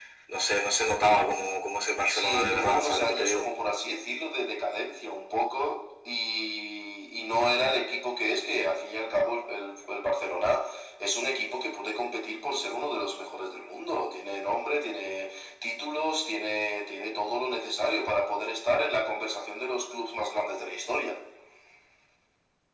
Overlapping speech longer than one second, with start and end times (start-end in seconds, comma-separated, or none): 2.1-3.5